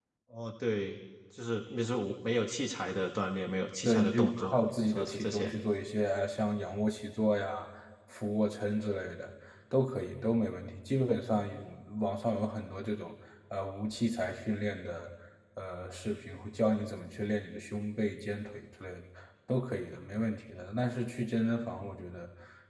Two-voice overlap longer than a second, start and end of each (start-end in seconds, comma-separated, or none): 3.9-5.5